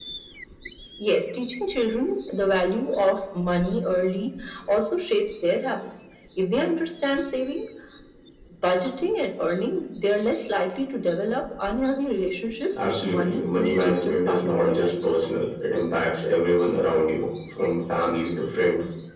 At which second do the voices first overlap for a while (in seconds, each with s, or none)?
12.8 s